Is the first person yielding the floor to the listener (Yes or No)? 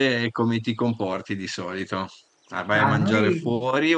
No